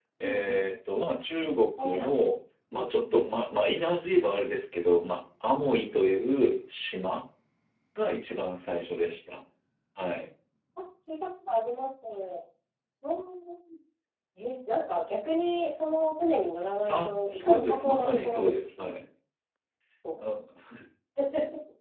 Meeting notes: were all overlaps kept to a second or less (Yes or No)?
No